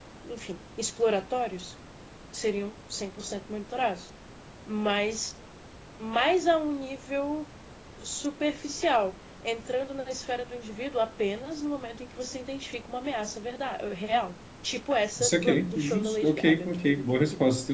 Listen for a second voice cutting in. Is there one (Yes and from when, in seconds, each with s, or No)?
Yes, from 15.2 s